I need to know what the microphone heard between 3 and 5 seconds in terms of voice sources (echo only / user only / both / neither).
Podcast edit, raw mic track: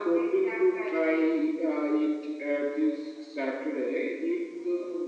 echo only